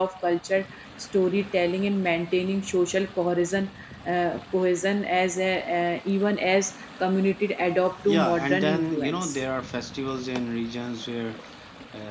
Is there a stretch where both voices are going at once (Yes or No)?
Yes